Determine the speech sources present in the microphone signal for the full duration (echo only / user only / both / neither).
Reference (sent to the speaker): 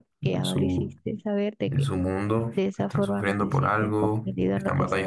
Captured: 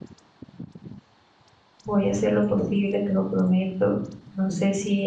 user only